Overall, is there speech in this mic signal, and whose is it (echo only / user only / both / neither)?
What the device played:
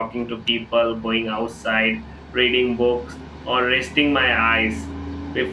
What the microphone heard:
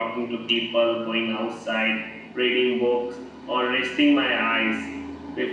echo only